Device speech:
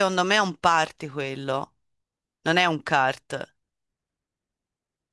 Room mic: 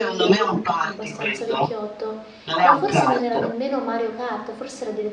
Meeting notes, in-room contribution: present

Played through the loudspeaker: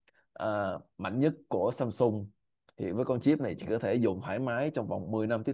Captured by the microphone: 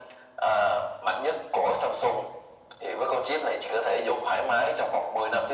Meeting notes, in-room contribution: none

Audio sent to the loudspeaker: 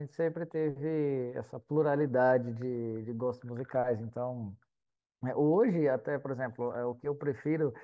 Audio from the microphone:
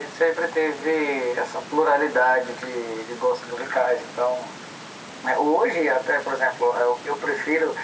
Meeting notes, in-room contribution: none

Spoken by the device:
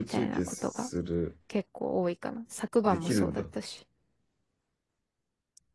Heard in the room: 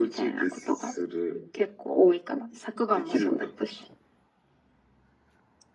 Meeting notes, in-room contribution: none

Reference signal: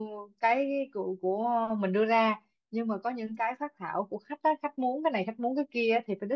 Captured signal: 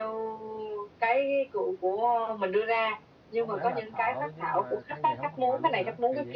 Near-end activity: present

